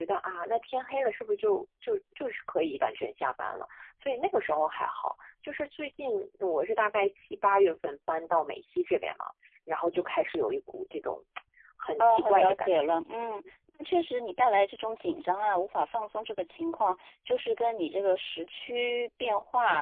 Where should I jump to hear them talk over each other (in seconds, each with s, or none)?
12.0 s